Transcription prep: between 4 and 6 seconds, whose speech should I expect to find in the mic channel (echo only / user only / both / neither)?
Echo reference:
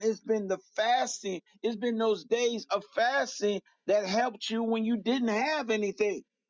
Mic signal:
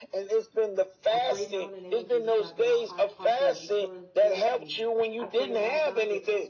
both